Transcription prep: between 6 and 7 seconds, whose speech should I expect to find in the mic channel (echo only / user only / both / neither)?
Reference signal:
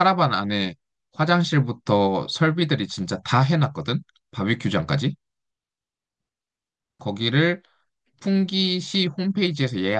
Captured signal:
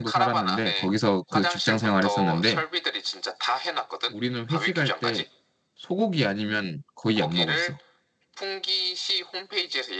user only